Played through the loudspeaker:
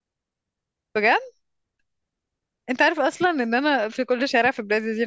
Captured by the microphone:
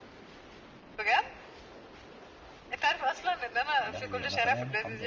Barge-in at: 3.8 s

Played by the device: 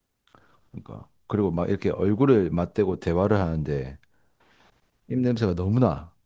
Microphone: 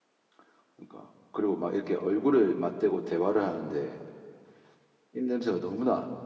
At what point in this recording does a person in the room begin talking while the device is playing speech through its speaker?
none

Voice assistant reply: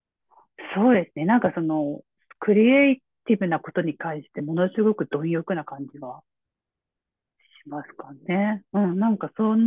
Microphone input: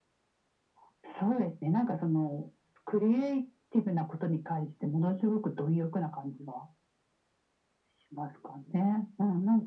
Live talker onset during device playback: none

